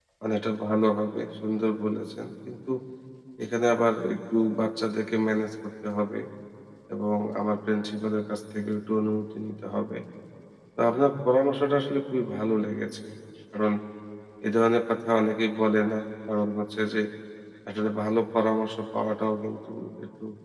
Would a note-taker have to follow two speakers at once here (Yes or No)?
No